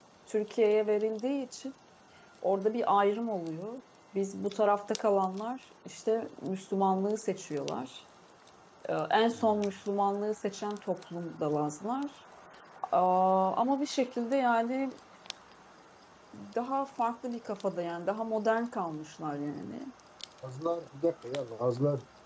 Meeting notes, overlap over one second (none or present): none